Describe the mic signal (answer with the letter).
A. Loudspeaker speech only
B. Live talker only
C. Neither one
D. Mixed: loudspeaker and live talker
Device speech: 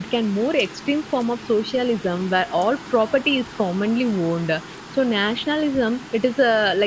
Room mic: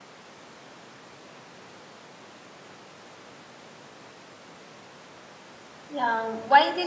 B